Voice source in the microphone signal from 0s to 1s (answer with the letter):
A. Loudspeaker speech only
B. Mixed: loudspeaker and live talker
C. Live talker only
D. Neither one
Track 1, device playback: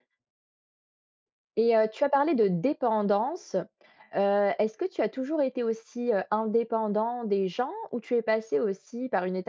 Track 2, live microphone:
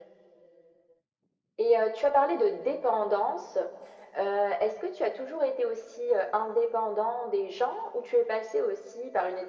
D